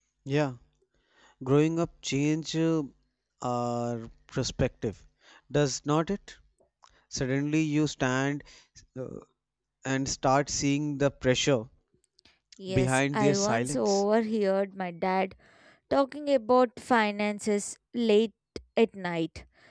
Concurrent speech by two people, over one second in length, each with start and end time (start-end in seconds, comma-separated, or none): 12.7-14.0